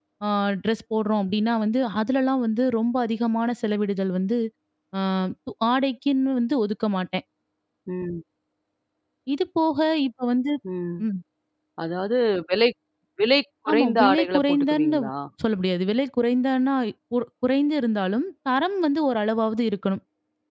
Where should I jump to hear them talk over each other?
13.7 s

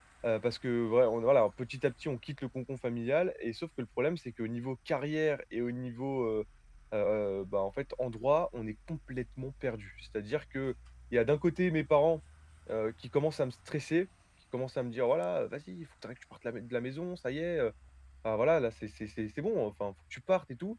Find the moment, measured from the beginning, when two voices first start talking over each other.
none

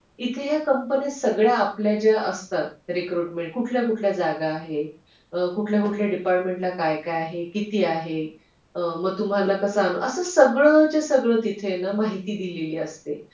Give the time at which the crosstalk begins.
none

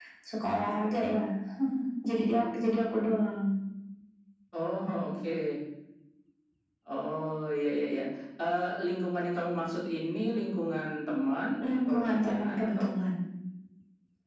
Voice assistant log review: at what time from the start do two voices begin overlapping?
11.6 s

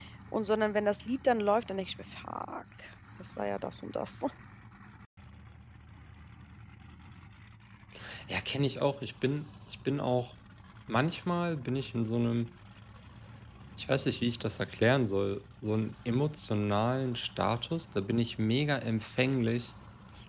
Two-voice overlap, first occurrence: none

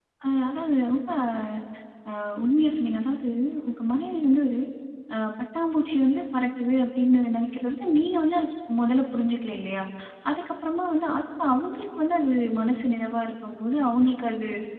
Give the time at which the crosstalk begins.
none

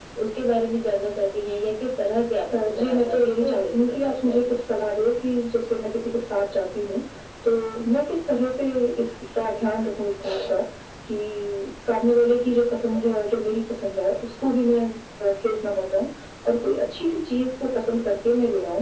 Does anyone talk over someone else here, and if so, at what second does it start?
2.5 s

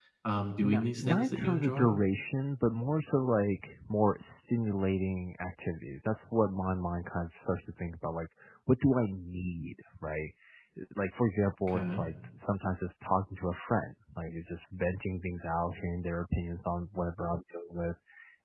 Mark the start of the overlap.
0.6 s

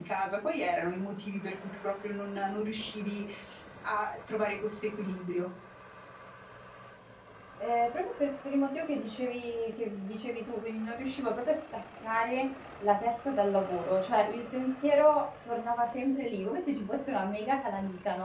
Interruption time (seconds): none

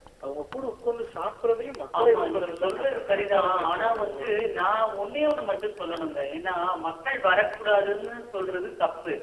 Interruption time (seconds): 1.9 s

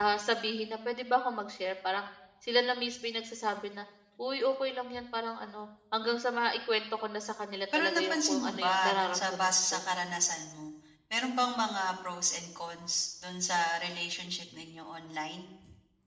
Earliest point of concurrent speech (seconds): 7.7 s

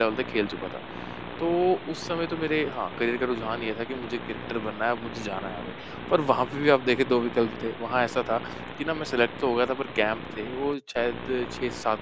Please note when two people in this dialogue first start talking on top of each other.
none

